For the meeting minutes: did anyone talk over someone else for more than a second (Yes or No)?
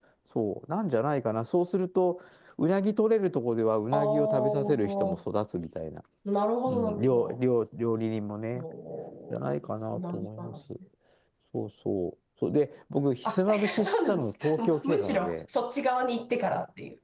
Yes